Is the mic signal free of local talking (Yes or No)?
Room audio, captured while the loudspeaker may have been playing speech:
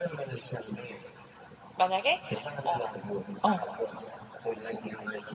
No